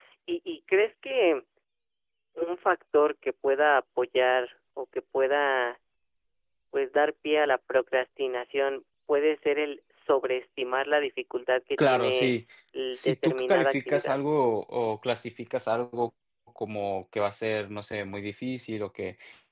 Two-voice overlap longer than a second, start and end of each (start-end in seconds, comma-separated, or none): 12.9-14.2